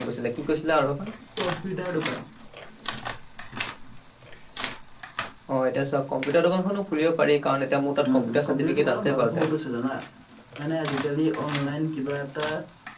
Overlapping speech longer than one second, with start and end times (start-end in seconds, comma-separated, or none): 8.1-9.4